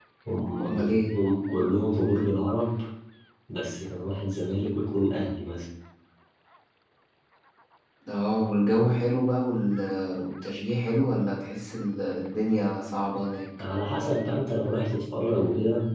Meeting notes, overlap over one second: none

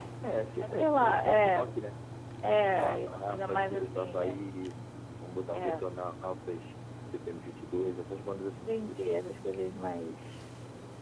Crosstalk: present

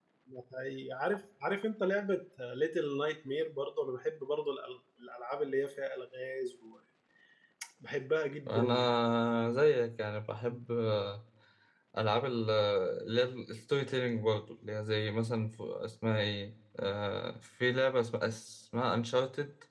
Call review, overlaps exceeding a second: none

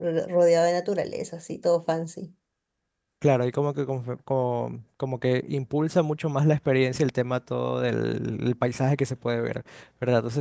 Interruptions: none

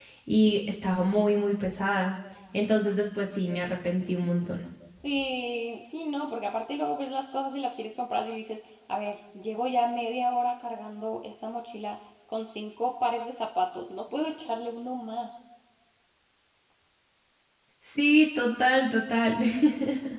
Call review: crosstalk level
none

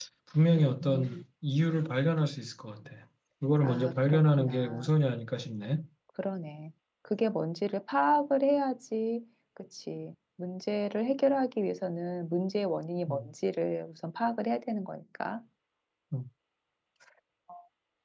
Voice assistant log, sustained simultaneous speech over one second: present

